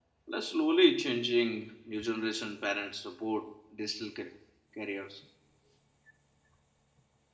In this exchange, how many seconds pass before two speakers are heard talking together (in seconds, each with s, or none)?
none